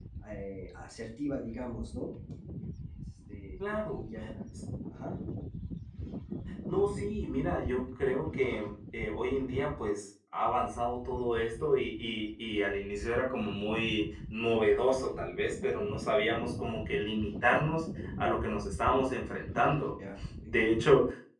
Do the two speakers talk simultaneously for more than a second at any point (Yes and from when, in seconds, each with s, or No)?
No